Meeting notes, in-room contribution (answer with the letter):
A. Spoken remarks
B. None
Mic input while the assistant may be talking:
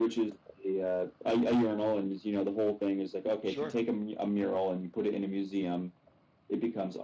A